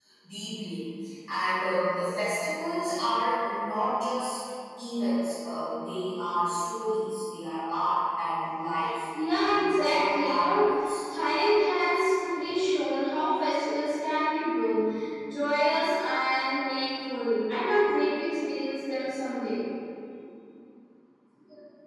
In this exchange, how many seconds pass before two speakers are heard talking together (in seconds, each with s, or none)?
9.1 s